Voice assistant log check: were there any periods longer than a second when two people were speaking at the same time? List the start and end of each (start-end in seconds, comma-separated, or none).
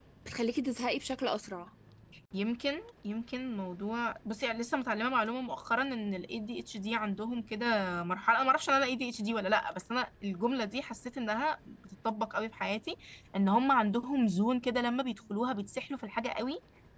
none